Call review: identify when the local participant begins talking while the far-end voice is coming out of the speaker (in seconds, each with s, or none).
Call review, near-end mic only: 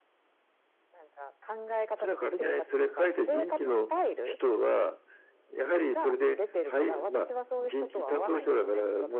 none